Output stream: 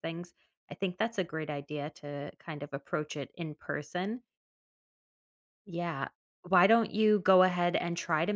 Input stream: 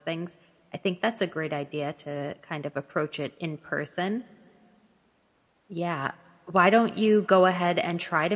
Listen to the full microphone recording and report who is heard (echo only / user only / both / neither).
echo only